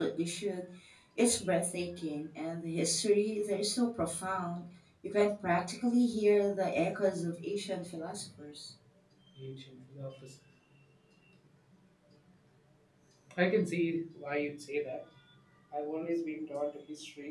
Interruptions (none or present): none